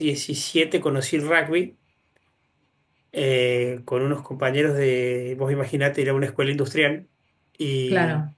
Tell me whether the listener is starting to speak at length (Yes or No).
No